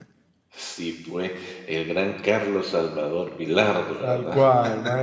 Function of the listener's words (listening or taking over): taking over